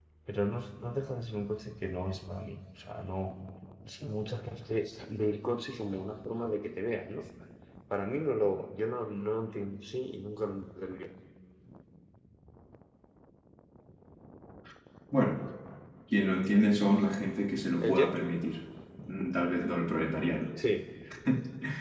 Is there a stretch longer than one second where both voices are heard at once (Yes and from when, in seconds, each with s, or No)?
No